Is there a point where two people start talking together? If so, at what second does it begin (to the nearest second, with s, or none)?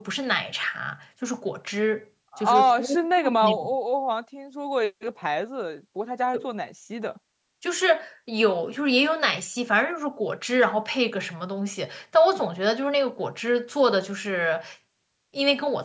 2 s